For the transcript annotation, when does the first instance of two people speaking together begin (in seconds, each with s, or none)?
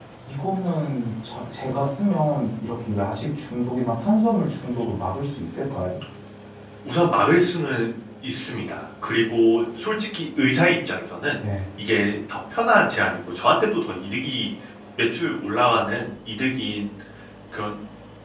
none